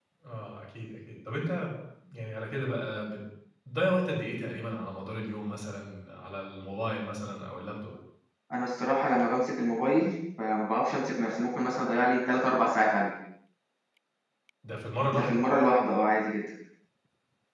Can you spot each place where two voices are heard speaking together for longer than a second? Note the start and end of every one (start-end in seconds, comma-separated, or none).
none